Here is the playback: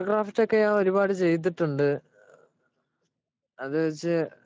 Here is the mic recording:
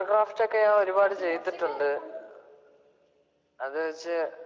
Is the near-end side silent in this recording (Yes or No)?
No